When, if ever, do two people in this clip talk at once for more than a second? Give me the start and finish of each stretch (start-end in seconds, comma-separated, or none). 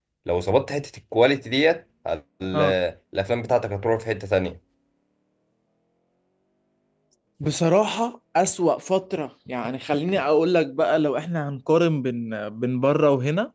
none